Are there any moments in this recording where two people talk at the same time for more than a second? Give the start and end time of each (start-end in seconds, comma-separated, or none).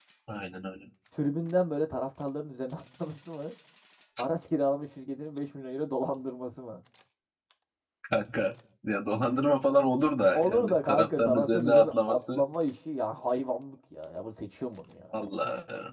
10.3-12.4